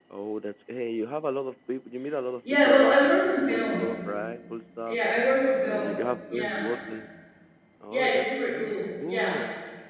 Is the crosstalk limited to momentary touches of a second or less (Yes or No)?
No